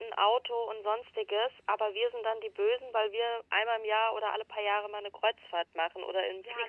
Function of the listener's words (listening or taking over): taking over